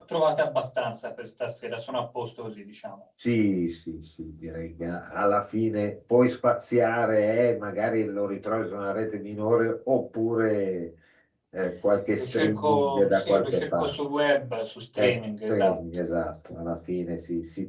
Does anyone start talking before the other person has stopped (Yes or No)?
Yes